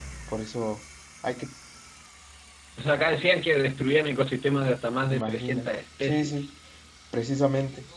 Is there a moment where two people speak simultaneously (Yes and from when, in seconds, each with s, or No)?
Yes, from 5.1 s